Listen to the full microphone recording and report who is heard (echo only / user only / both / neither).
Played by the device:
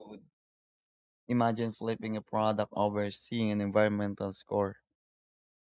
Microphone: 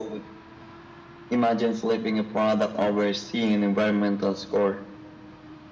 echo only